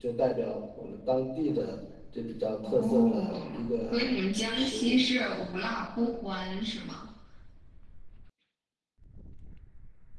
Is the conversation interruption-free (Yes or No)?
No